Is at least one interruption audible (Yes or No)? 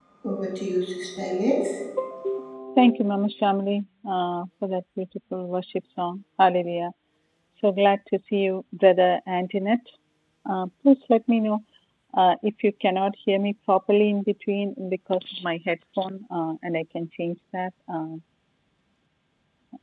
No